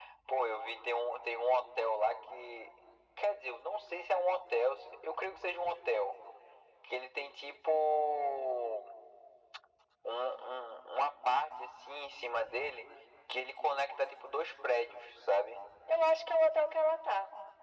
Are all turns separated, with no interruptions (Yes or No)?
Yes